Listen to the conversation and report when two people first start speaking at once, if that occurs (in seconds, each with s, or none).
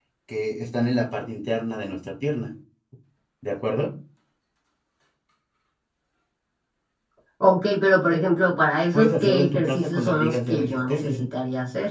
8.9 s